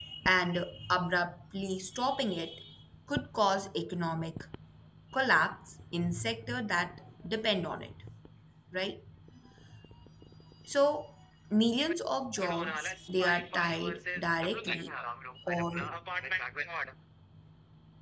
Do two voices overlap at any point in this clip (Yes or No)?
Yes